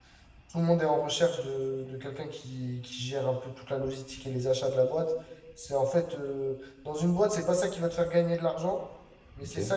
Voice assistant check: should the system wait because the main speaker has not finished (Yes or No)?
Yes